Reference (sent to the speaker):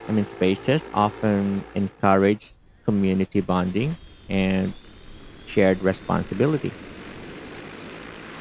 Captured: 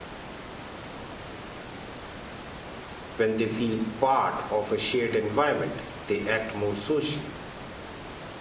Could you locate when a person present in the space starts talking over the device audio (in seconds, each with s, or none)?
3.2 s